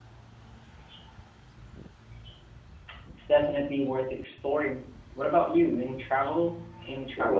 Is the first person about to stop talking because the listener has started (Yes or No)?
Yes